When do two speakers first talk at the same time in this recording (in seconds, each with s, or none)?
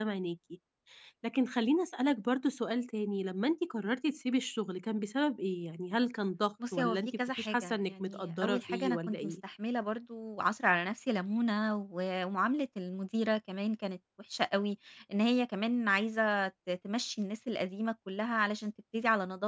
6.6 s